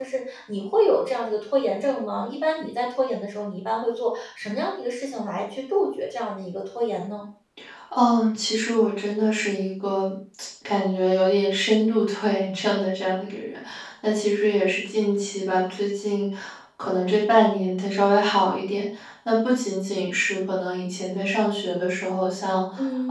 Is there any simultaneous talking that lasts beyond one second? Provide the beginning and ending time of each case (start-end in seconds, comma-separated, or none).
none